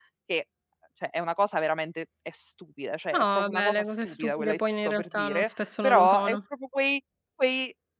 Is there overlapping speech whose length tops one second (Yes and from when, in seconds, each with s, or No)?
Yes, from 3.1 s